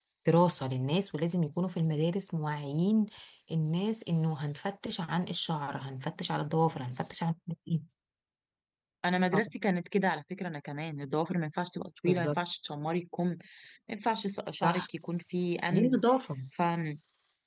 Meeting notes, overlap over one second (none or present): none